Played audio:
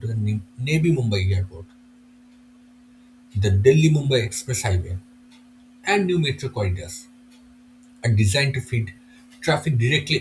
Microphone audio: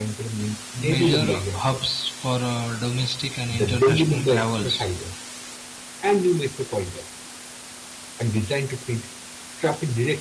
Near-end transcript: major hubs for uh, domestic and international travels

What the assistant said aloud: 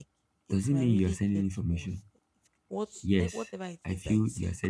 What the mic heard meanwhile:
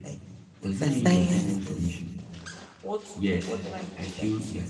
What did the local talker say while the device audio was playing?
That silence is

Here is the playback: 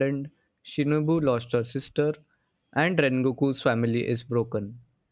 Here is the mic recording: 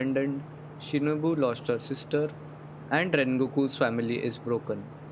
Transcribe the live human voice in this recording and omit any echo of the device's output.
none

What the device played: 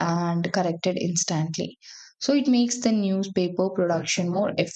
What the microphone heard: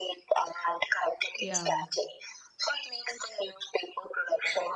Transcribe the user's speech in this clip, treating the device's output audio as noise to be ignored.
Yeah.

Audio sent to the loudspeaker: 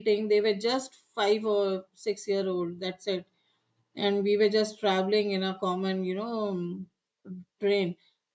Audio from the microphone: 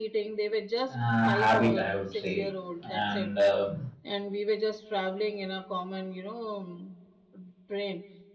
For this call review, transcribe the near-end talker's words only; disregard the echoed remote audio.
a habit i would say and um,

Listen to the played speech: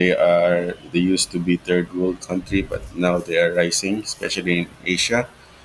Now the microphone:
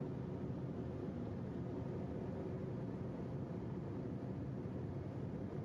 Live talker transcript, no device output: none

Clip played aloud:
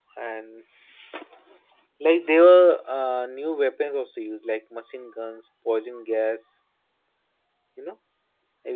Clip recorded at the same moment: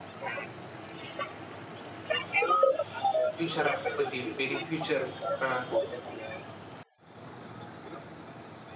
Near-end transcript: future up for the very future uh,

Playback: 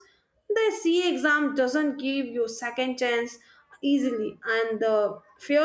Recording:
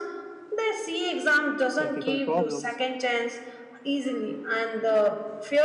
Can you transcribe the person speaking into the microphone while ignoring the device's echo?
practical problems,

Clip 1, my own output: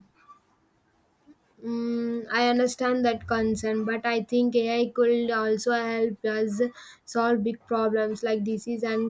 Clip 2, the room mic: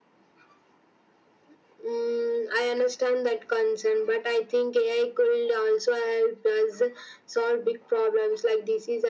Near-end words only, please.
none

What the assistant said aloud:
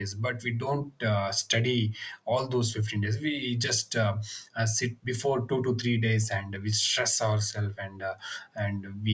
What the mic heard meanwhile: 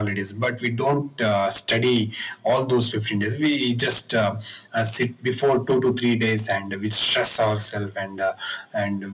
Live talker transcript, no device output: none

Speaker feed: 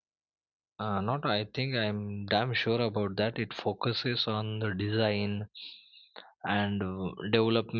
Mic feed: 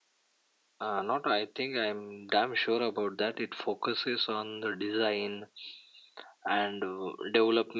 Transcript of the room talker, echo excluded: none

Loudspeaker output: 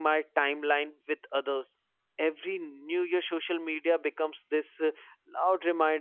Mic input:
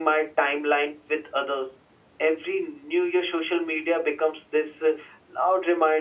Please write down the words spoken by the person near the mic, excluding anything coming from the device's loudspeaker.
none

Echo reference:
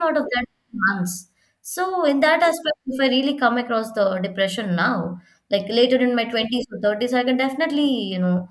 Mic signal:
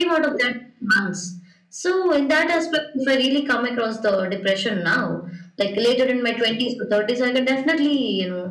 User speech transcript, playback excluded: none

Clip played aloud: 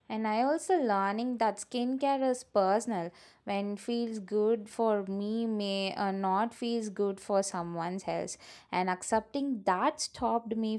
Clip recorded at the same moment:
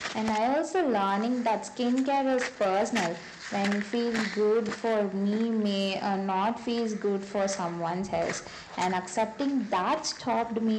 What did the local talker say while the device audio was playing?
none

